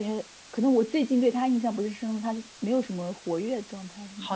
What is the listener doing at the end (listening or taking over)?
taking over